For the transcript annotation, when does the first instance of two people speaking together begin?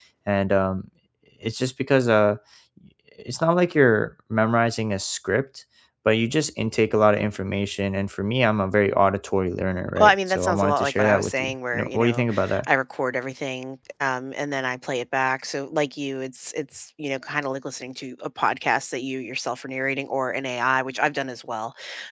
9.9 s

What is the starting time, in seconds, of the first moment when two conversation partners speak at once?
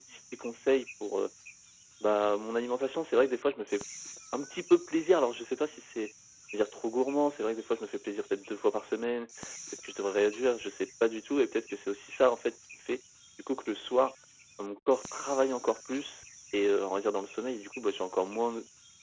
none

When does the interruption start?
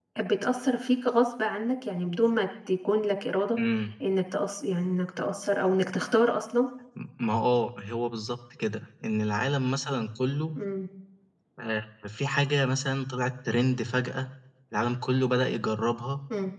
none

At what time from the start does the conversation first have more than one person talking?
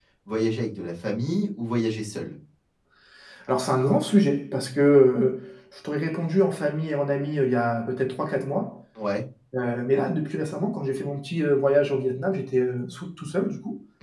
none

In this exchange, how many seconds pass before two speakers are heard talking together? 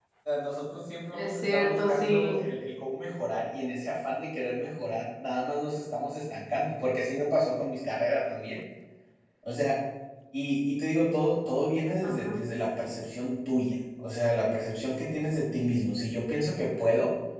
1.1 s

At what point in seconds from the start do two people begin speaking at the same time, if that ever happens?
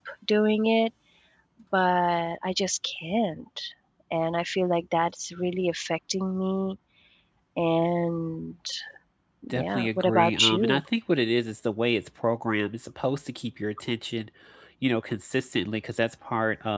9.5 s

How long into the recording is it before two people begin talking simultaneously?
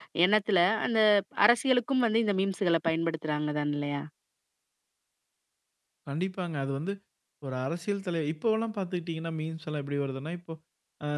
none

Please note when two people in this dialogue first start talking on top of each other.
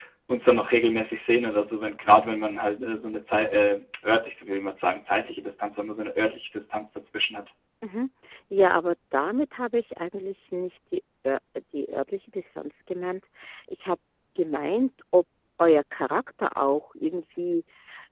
none

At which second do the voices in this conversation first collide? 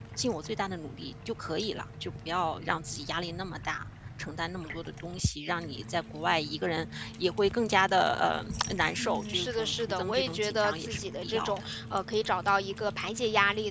9.0 s

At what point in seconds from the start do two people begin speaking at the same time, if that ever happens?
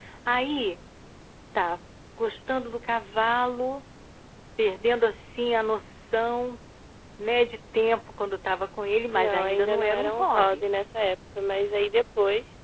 9.1 s

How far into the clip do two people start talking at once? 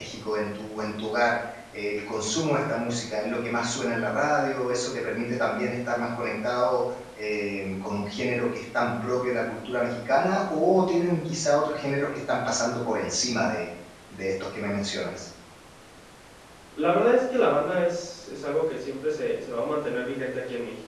none

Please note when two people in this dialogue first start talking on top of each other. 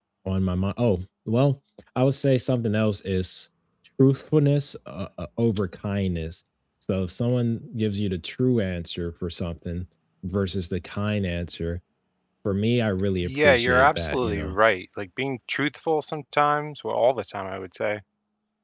13.2 s

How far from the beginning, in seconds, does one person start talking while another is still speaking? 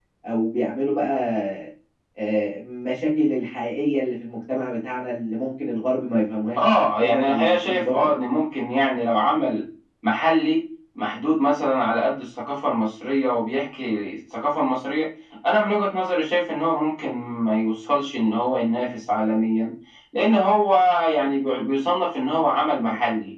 6.6 s

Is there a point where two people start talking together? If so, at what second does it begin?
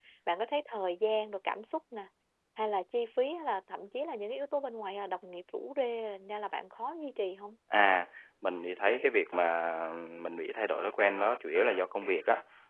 none

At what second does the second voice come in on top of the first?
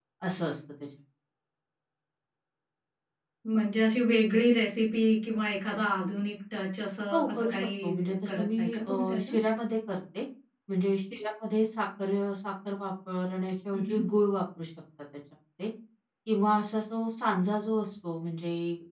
7.1 s

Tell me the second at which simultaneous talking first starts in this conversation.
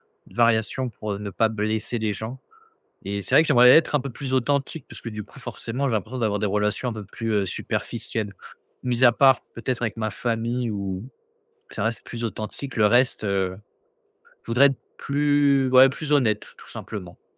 none

